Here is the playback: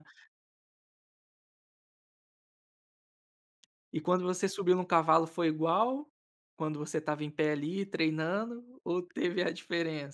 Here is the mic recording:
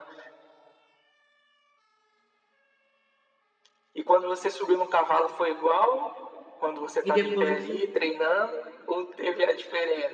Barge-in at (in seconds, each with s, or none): 7.0 s